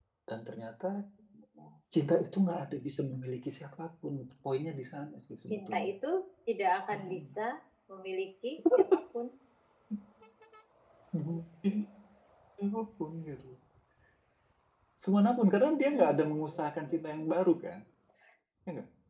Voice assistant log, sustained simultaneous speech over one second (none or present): present